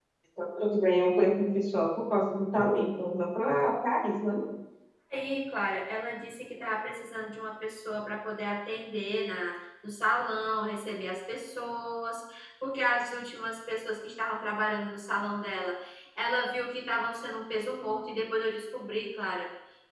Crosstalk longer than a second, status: none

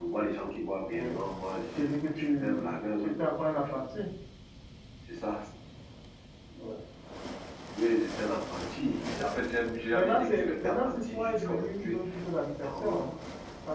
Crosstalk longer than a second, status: present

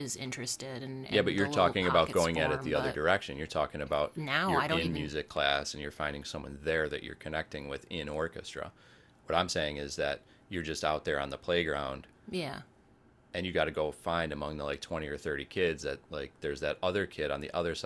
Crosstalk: present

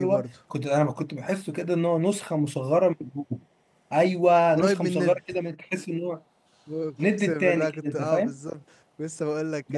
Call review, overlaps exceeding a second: present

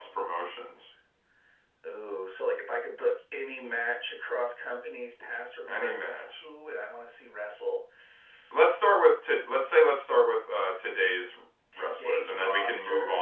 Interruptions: present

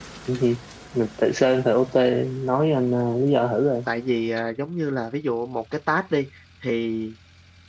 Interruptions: none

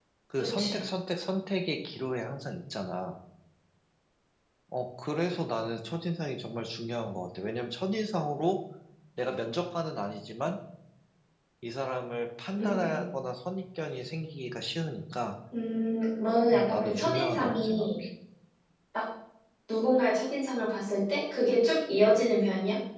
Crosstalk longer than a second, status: present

